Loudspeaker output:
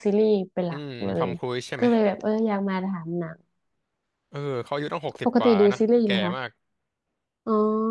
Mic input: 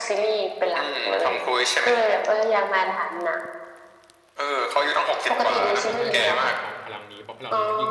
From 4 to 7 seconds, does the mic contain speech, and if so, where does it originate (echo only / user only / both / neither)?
both